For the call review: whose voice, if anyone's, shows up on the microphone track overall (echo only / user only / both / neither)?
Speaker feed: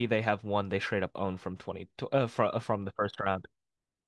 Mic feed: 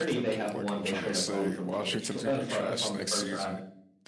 both